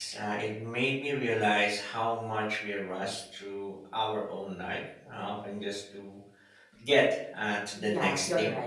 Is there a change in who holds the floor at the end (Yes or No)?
Yes